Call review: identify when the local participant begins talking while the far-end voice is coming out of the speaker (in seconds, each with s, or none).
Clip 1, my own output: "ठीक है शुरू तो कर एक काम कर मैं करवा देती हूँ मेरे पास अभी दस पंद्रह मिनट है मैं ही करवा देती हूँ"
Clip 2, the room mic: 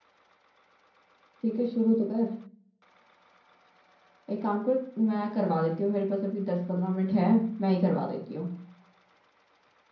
none